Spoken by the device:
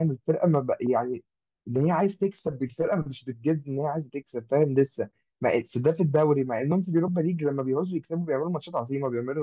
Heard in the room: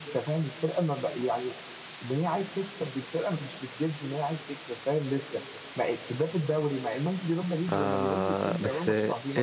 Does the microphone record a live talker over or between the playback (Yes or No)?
Yes